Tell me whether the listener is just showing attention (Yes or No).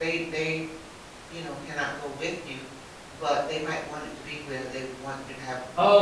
No